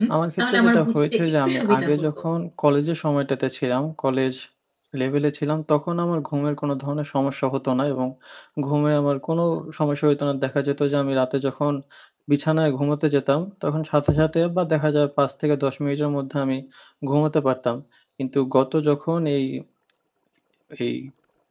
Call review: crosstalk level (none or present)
present